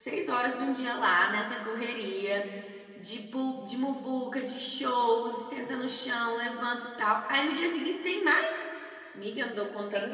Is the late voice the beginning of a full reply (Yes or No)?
Yes